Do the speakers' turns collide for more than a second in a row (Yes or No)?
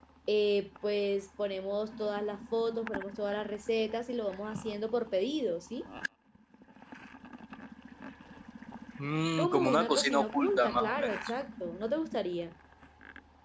Yes